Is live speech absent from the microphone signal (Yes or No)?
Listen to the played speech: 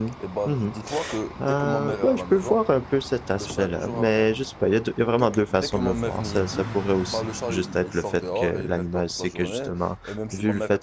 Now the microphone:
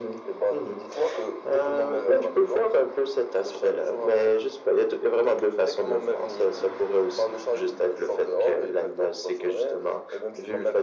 Yes